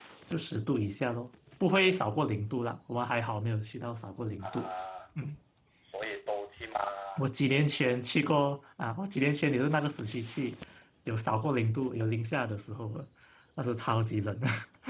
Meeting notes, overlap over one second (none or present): none